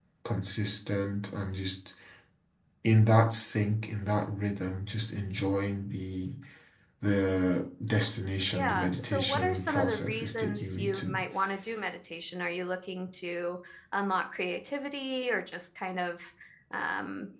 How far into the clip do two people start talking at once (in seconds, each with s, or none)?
8.5 s